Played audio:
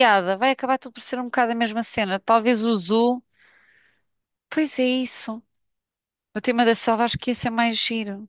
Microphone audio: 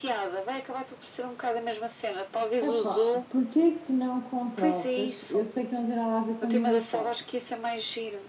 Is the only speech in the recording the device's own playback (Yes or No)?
No